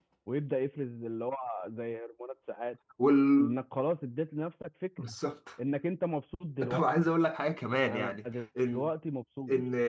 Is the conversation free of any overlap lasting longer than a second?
Yes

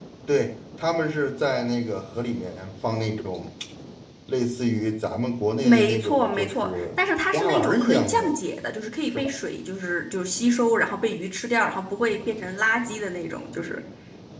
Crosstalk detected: Yes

